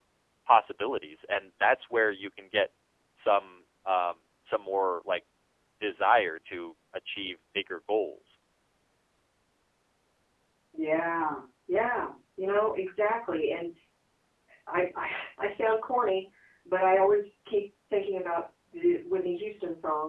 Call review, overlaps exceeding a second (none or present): none